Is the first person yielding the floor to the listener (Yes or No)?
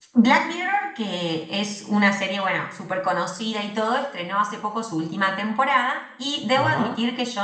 No